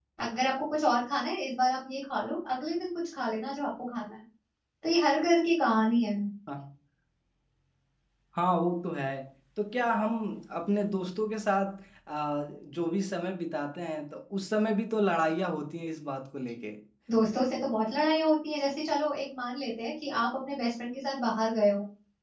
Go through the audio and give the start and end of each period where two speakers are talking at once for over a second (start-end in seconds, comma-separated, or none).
none